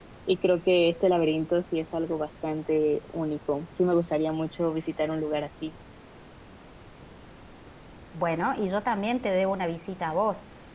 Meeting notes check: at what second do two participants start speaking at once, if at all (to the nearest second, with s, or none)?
none